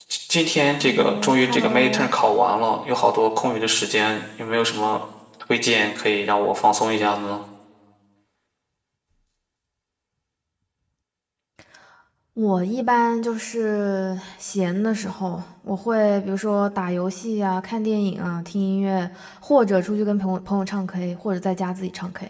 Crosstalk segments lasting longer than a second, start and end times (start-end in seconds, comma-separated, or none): 0.7-2.1